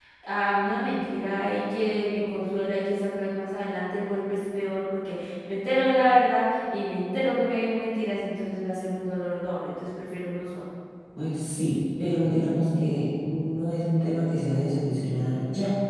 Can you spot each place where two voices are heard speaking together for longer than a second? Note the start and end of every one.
none

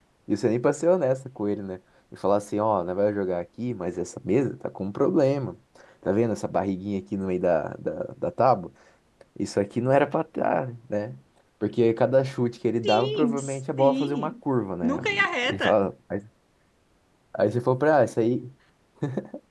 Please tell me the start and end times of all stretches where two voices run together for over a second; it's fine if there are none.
12.8-14.3

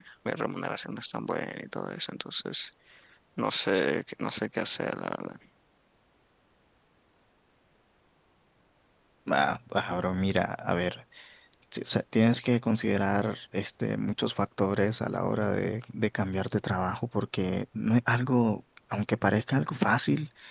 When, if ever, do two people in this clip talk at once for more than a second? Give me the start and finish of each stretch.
none

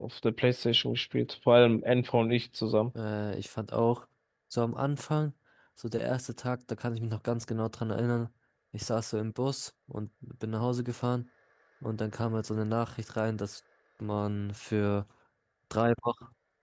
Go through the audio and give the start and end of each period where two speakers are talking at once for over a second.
none

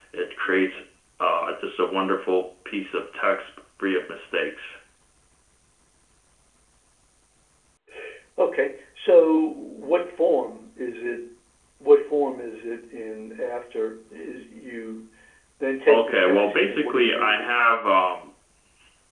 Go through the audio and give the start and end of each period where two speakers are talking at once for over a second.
15.9-17.5

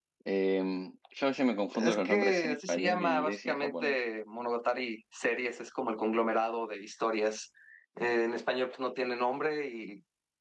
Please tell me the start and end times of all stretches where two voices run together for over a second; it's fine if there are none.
1.7-4.0

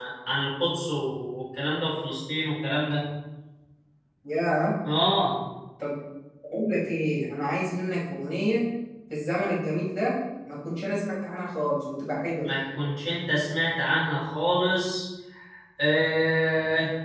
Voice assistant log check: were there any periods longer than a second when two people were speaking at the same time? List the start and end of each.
none

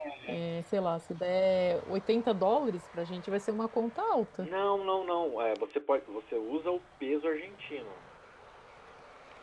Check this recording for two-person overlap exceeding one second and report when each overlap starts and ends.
none

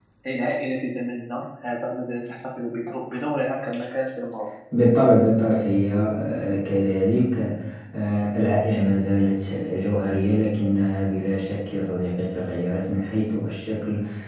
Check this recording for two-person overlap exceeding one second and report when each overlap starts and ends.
none

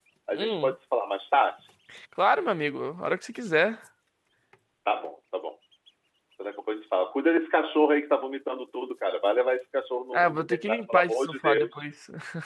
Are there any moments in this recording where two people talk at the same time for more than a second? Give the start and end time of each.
10.1-11.8

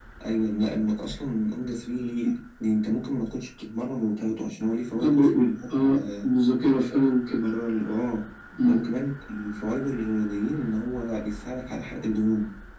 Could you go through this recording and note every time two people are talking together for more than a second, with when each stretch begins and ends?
4.9-6.3

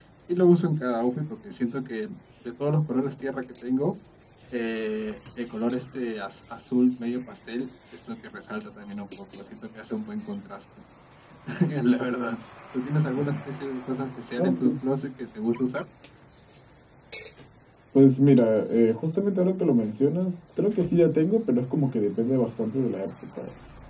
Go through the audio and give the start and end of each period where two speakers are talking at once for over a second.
none

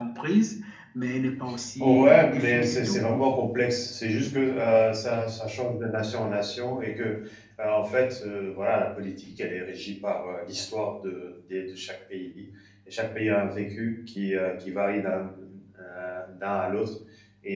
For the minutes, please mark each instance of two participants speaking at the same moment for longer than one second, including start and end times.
1.8-3.0

